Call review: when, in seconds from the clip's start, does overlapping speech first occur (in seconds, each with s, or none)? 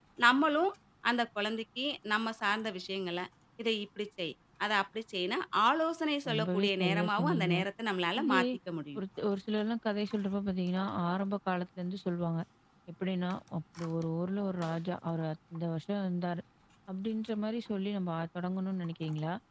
6.3 s